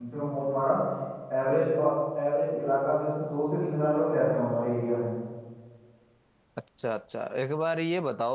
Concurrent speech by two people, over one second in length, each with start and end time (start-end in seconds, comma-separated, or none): none